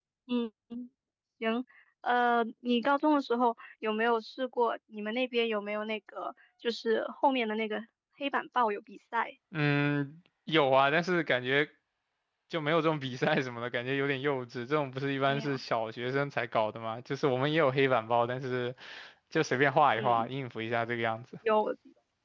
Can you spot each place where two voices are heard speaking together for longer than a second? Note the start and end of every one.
none

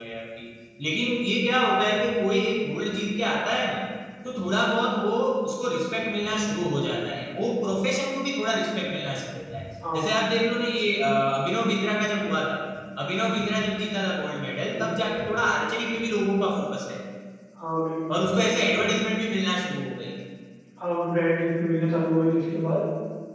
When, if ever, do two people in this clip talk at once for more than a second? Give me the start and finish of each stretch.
none

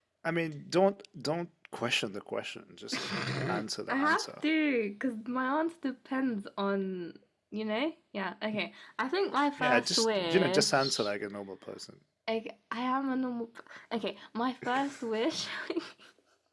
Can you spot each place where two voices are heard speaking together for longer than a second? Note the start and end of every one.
9.6-11.1

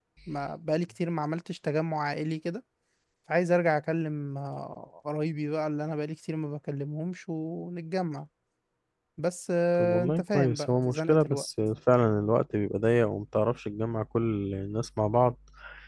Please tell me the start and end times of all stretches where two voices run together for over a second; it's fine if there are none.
9.8-11.4

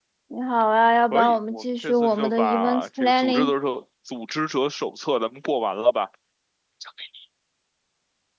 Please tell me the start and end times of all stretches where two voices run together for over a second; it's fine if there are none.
1.0-3.5

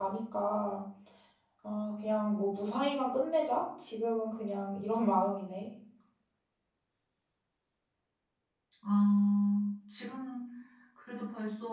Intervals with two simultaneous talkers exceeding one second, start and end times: none

